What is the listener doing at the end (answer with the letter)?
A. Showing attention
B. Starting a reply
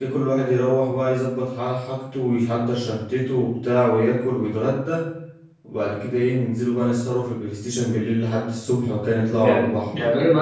B